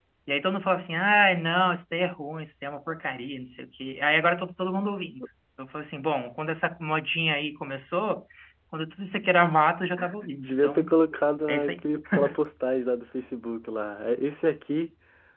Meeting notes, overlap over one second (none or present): none